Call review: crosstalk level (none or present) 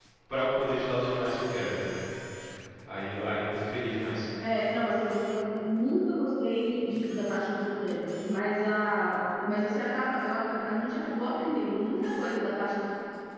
none